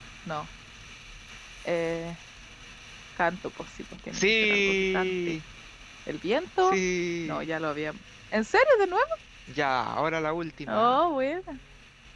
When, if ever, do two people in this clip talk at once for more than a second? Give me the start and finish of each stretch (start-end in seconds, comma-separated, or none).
4.1-5.4